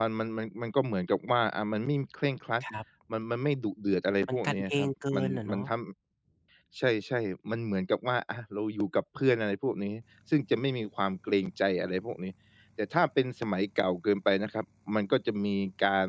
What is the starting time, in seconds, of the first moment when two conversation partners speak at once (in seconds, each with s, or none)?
4.3 s